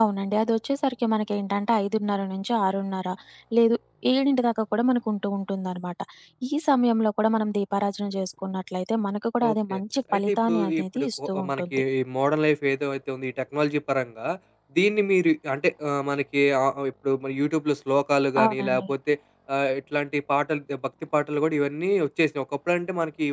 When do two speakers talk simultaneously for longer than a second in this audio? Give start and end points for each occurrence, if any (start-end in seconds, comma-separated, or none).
10.1-11.8